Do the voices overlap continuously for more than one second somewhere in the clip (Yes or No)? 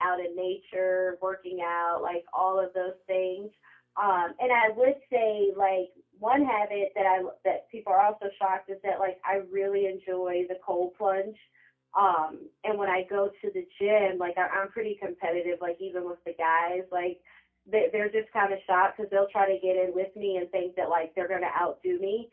No